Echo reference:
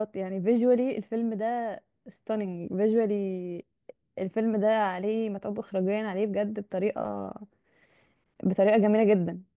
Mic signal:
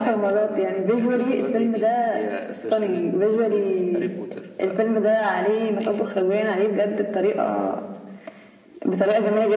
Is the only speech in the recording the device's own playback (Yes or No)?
No